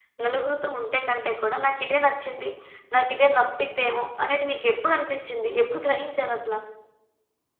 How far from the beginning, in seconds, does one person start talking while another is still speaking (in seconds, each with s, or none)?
none